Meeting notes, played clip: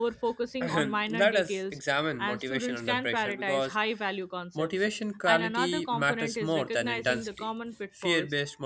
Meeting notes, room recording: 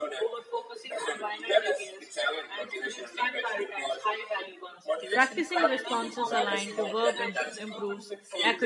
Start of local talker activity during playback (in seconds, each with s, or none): 5.1 s